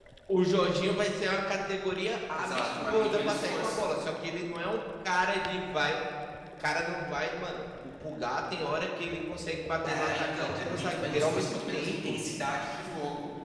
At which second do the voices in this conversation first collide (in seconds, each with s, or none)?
2.3 s